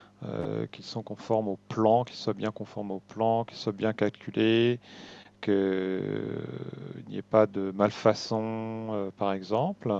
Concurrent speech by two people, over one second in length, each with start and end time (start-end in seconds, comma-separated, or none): none